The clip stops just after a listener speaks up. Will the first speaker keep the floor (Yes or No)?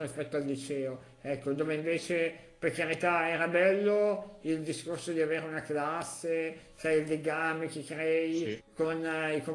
Yes